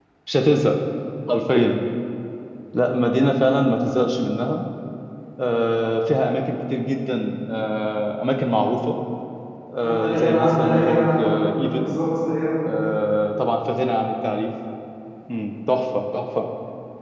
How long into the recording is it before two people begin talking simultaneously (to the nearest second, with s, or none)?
10 s